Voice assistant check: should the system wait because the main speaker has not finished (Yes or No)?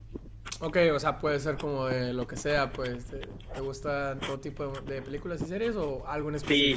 No